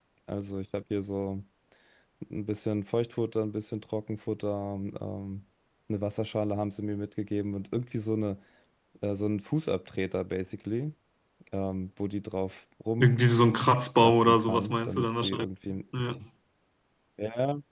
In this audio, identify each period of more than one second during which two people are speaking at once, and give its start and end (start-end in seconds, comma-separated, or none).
14.0-15.4